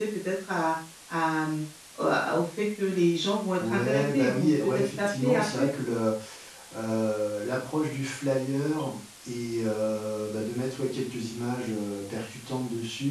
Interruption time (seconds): 3.6 s

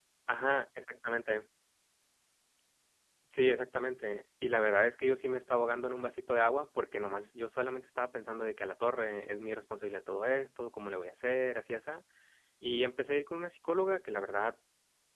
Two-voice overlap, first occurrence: none

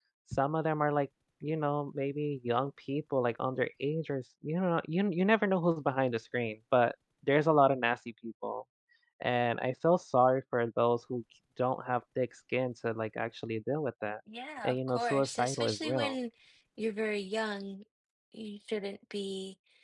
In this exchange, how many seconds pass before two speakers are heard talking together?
14.6 s

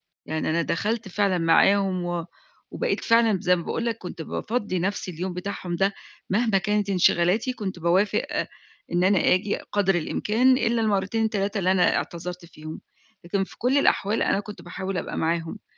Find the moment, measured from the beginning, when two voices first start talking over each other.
none

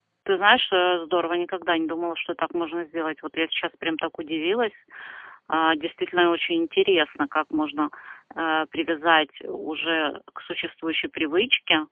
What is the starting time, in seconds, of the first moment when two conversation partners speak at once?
none

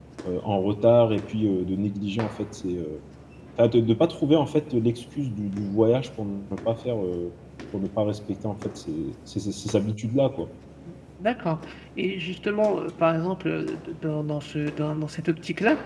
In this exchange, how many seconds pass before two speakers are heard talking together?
none

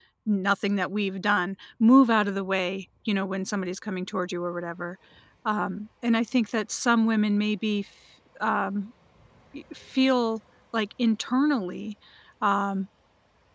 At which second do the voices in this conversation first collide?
none

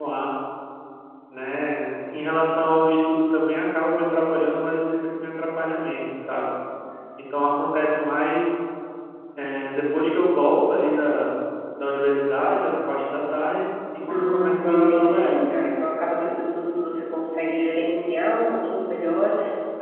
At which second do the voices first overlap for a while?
14.1 s

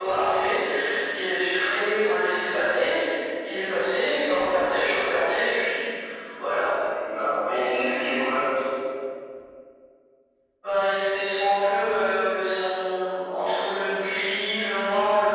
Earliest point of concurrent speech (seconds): none

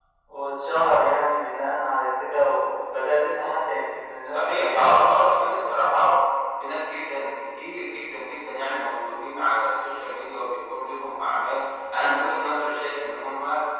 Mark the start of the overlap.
4.3 s

